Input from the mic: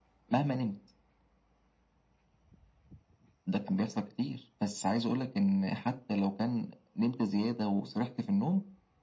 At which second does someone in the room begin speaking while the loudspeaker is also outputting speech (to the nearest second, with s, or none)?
none